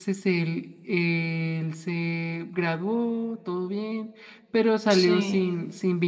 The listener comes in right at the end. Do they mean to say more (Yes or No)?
No